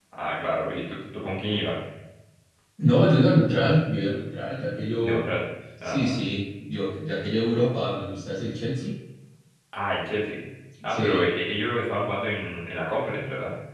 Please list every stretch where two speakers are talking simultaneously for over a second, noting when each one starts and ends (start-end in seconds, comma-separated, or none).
none